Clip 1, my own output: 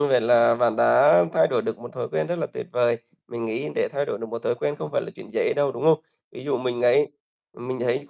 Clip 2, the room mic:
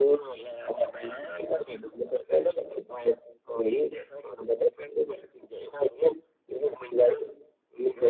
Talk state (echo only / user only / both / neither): echo only